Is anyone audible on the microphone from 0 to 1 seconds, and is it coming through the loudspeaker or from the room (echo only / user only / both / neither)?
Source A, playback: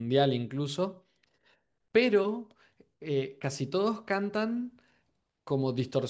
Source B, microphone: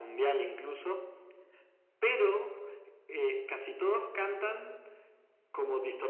echo only